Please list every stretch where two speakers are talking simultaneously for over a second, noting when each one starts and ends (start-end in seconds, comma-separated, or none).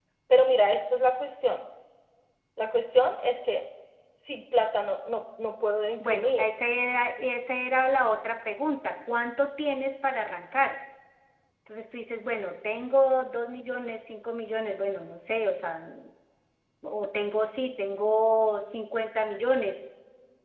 none